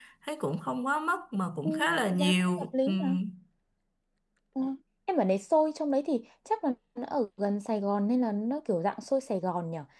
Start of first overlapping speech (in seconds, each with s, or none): 1.6 s